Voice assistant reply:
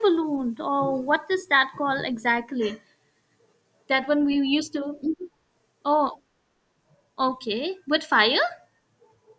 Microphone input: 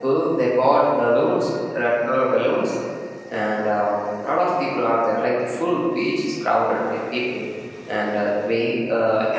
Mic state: user only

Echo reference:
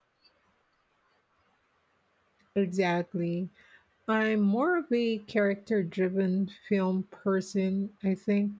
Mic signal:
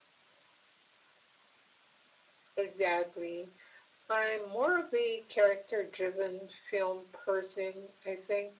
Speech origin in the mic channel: echo only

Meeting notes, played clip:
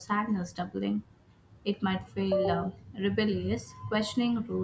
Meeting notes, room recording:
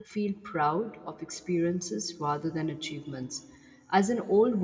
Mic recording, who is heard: user only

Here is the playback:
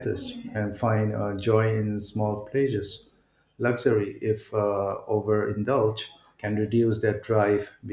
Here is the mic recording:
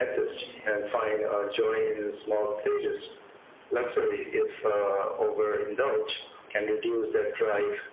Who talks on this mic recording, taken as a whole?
echo only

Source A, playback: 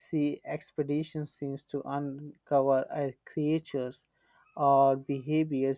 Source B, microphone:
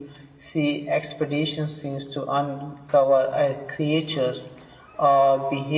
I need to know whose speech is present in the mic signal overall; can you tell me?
echo only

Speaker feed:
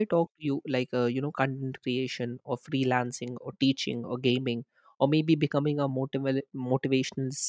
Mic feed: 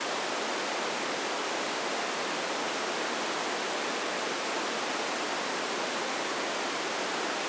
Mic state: neither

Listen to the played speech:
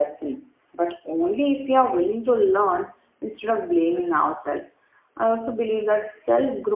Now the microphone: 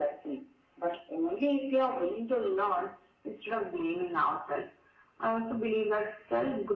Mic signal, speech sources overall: echo only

